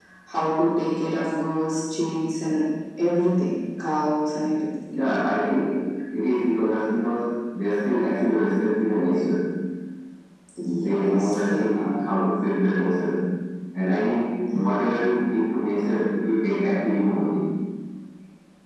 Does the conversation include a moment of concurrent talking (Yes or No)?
Yes